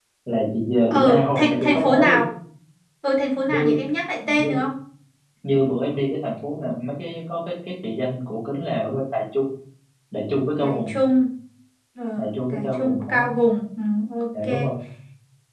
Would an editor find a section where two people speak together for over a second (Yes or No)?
Yes